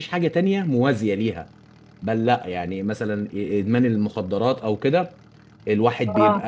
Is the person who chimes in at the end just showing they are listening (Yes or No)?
Yes